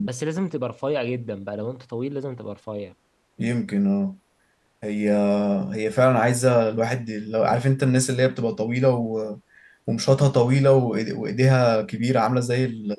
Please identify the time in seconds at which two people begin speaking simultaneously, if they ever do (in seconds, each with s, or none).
none